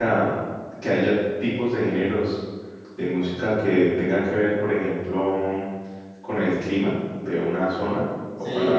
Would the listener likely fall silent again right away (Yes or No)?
No